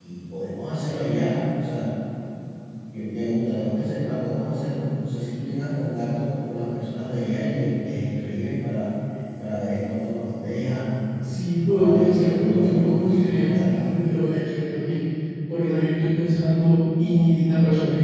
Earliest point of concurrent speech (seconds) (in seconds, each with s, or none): 11.7 s